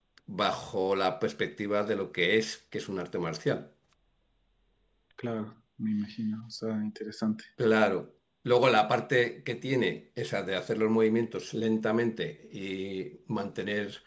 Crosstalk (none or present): none